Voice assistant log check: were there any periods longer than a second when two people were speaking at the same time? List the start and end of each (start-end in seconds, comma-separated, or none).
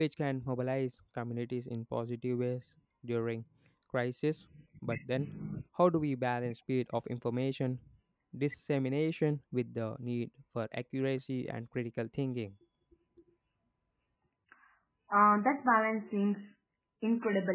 none